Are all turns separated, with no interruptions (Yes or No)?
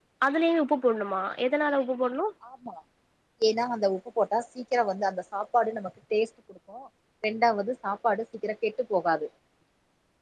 Yes